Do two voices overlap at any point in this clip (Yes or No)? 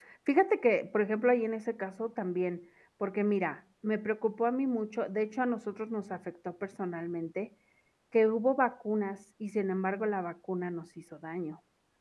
No